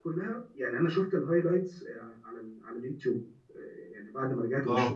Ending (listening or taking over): listening